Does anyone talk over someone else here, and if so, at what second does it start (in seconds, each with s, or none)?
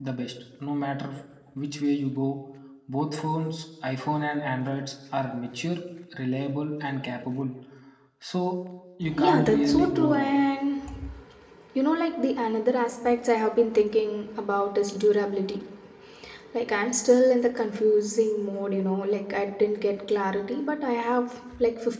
9.2 s